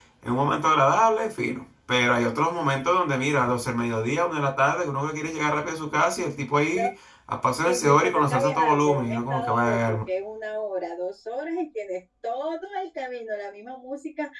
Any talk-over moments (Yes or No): Yes